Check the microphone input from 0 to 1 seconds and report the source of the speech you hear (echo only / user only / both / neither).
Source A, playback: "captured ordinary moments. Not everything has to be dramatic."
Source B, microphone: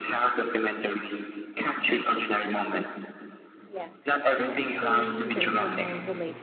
echo only